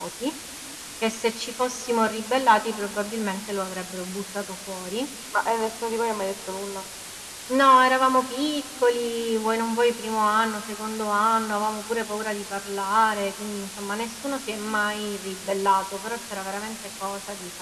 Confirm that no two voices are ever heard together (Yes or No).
Yes